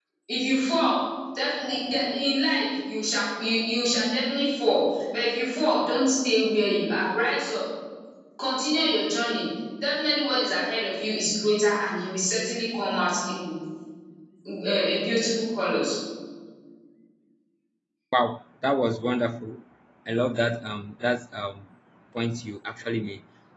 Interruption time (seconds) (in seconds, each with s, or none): none